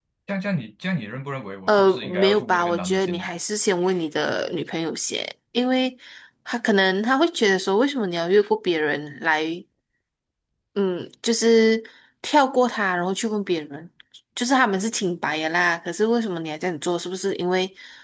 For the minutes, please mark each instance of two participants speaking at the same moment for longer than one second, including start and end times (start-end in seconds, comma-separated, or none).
1.7-3.3